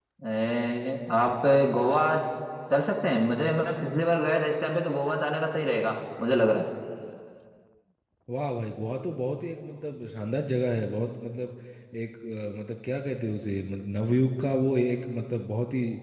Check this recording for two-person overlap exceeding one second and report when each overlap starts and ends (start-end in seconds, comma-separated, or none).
none